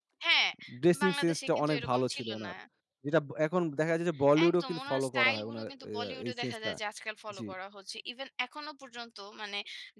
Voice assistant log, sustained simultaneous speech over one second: present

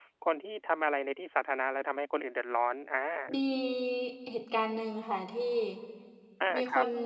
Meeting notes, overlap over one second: none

